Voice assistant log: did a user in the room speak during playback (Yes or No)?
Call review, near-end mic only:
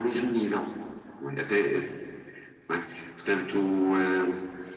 No